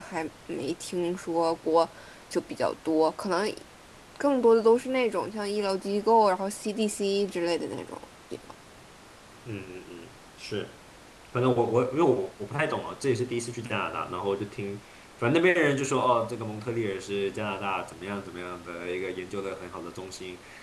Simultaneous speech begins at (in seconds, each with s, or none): none